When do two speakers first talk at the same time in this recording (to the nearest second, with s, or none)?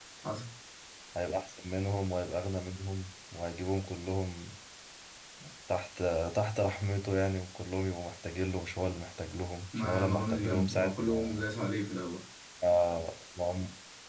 10 s